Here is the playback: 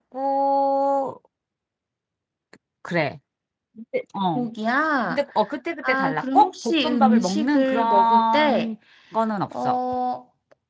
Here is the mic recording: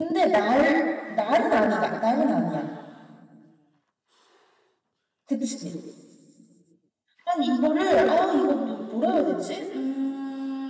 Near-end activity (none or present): present